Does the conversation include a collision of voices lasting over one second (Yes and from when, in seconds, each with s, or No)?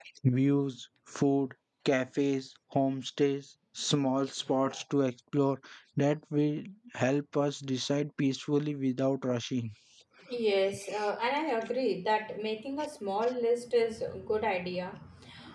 No